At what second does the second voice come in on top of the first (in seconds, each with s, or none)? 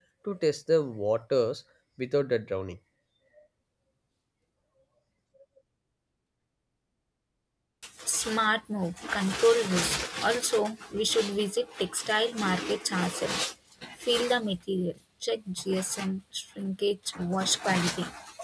none